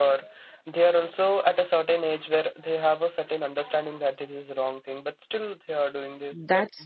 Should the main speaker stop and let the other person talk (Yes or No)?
Yes